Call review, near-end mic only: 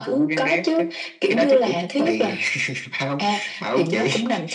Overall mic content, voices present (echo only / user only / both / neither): echo only